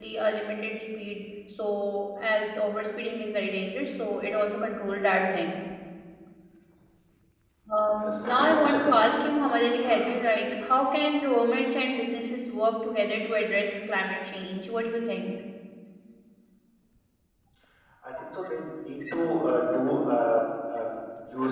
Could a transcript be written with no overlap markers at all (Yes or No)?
No